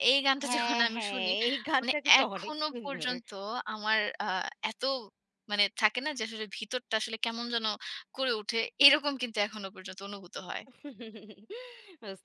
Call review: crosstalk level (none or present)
present